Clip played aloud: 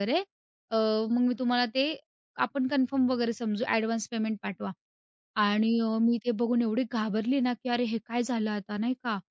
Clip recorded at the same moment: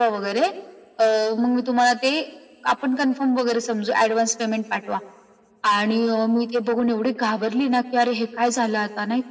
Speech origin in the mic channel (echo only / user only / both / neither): echo only